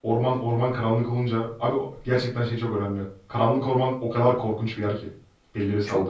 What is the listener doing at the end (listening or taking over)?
taking over